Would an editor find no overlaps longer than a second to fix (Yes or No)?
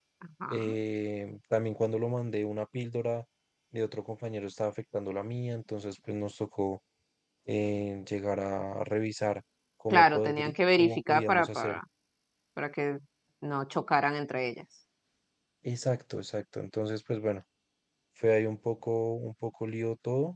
No